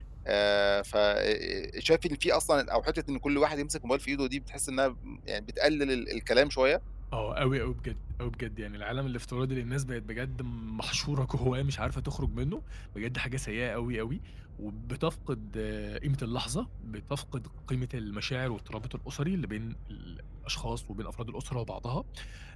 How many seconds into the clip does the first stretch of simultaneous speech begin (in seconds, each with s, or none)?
none